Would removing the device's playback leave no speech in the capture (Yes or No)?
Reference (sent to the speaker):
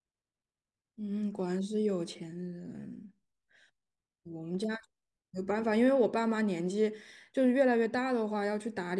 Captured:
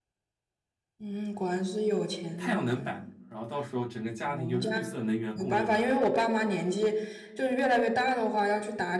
No